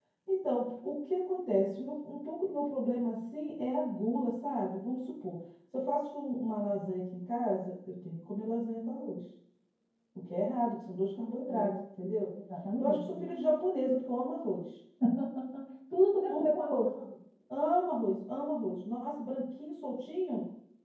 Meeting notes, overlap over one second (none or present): none